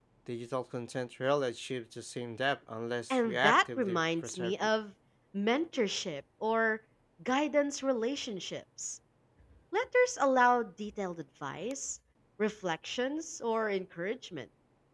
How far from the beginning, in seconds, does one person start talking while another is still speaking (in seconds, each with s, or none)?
3.1 s